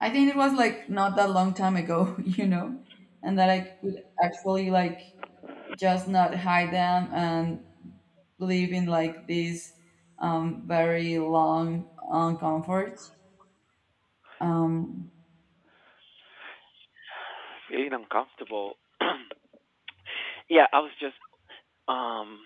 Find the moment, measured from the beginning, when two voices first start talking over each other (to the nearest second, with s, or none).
none